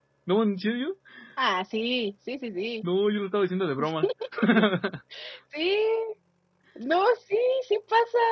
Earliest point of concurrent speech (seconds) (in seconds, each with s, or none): none